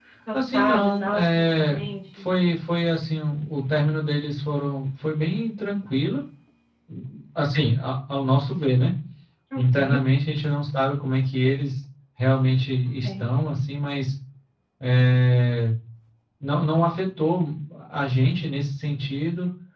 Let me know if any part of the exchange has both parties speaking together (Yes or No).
Yes